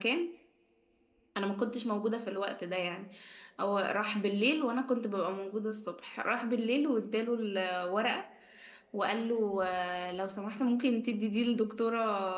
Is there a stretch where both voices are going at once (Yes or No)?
No